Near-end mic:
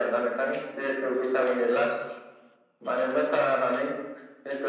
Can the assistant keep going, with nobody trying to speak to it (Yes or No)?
Yes